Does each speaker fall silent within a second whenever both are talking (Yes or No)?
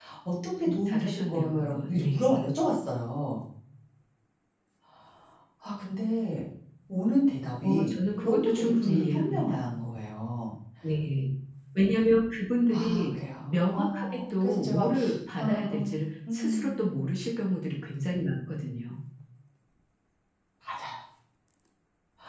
No